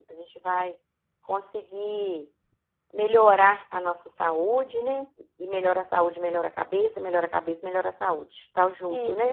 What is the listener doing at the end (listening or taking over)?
taking over